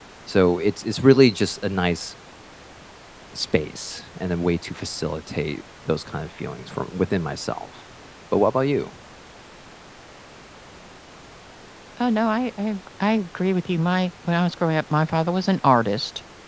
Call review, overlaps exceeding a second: none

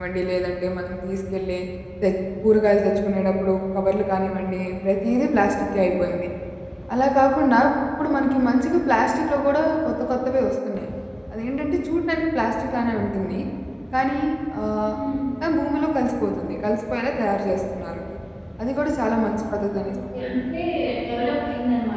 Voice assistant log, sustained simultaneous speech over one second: none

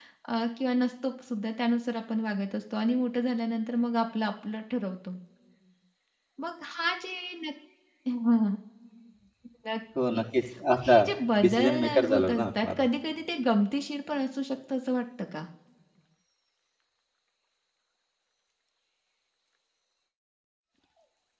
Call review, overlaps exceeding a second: present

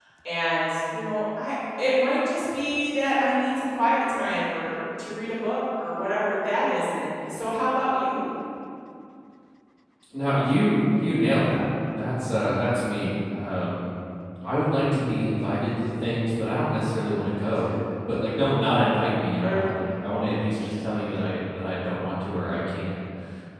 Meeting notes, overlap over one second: none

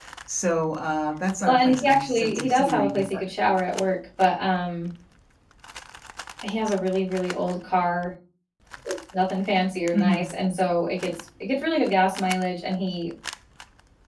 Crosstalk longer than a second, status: present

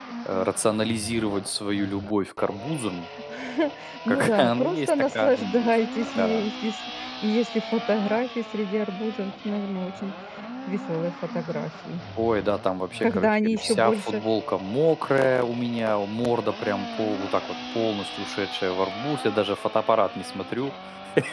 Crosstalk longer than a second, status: present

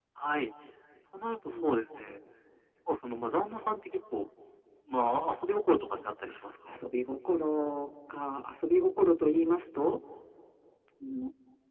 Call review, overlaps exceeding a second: none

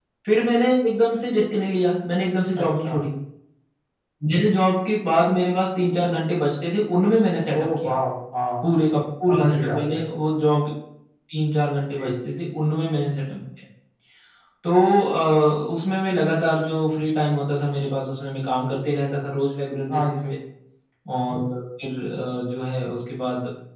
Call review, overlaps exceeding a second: none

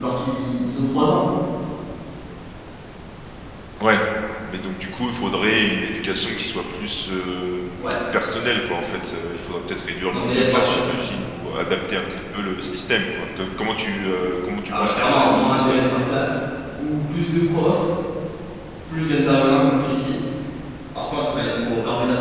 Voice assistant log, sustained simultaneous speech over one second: present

